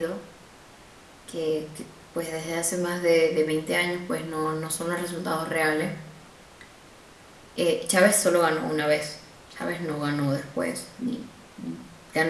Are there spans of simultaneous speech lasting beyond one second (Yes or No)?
No